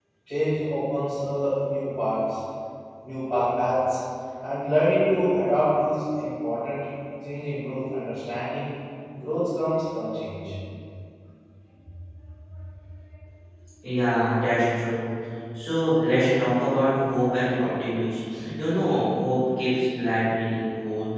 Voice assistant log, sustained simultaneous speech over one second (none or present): none